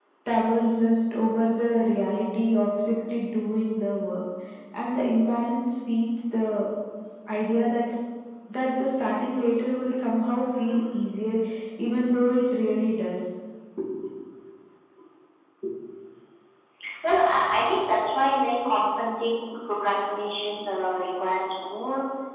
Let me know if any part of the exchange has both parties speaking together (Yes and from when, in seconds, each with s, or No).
No